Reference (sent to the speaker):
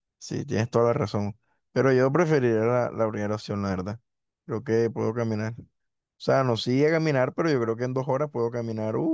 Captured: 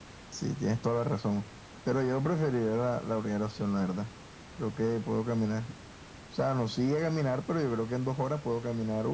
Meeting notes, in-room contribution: none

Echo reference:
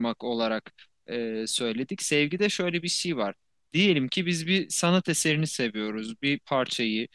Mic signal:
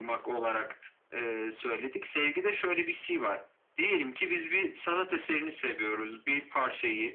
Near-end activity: none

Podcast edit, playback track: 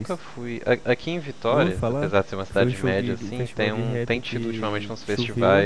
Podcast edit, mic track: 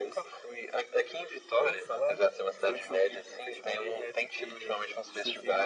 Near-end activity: none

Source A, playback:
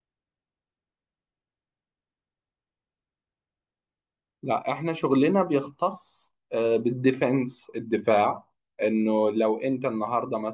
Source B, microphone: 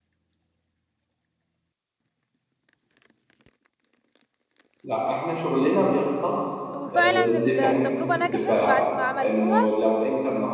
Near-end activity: present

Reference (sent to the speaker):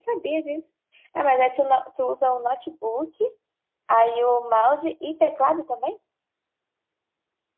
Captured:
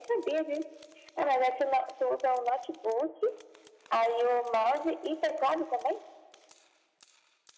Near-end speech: none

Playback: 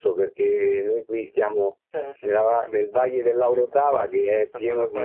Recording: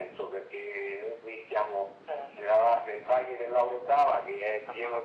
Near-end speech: none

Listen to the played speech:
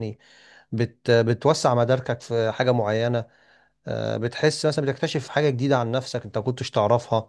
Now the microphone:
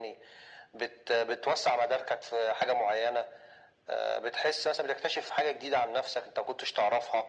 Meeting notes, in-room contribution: none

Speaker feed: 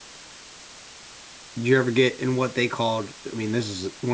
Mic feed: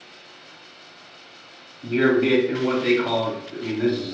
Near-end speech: none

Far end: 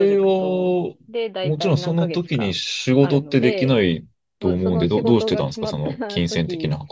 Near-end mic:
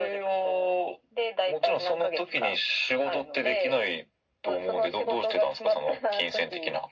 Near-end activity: none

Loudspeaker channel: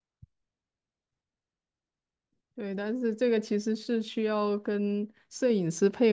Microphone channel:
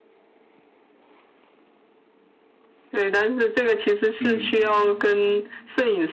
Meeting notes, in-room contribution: present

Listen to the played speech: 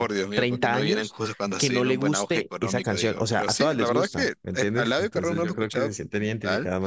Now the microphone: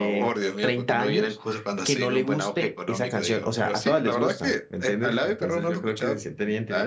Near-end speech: none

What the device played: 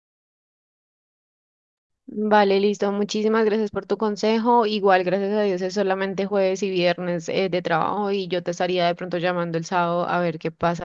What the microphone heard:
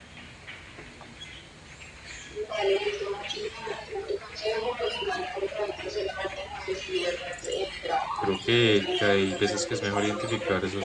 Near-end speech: present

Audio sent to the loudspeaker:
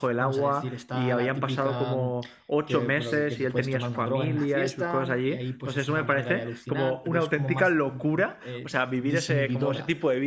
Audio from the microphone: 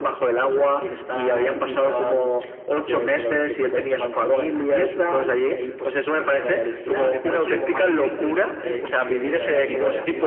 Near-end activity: present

